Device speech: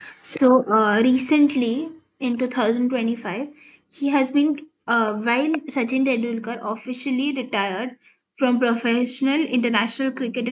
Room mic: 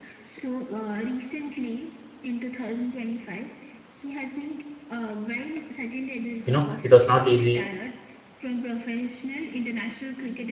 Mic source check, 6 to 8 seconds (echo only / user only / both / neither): both